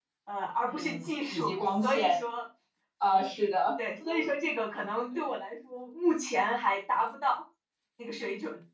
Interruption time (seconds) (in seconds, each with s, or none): 0.6 s